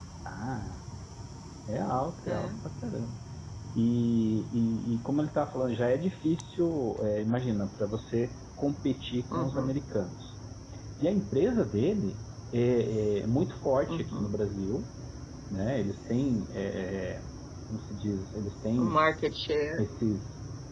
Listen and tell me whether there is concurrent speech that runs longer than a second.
No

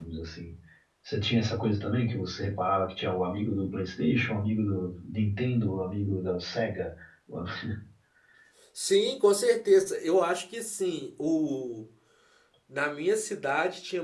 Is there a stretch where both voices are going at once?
No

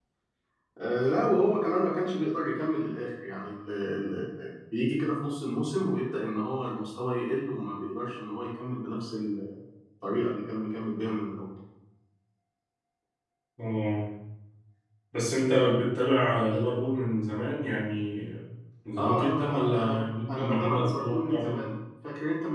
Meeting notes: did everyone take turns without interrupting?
No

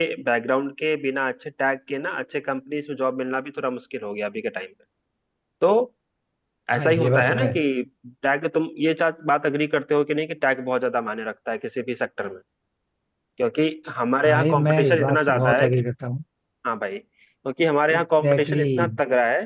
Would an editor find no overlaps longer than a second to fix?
No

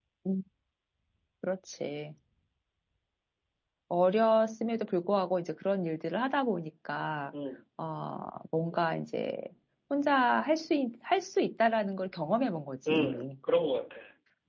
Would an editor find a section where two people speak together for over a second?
No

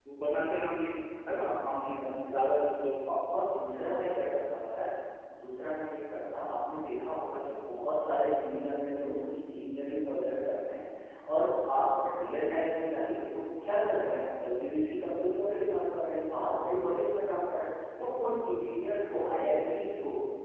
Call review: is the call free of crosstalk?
Yes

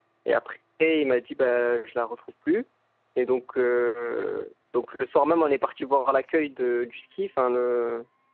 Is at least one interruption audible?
No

